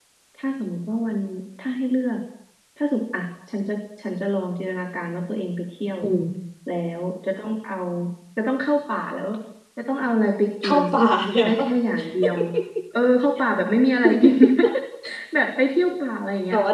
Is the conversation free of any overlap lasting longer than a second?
Yes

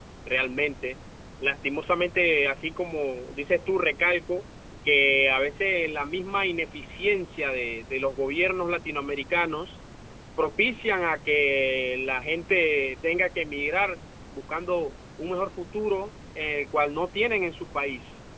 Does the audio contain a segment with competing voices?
No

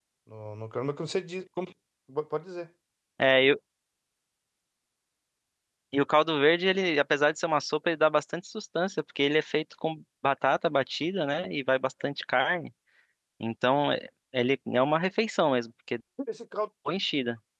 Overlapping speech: No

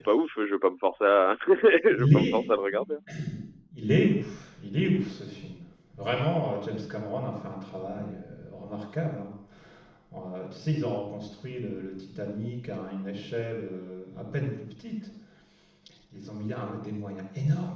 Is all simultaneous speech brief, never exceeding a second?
Yes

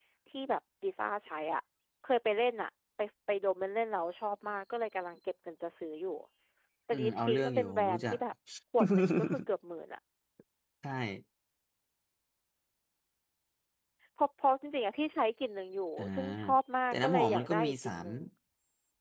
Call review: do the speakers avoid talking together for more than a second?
No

